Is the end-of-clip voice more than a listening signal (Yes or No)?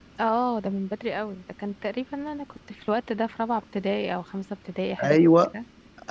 Yes